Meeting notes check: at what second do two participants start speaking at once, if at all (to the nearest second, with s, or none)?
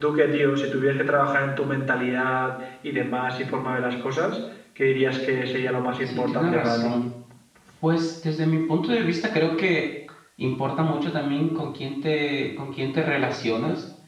6 s